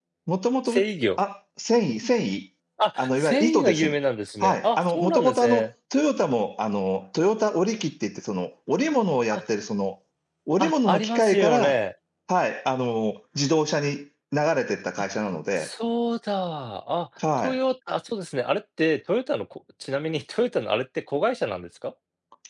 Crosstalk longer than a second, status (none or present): present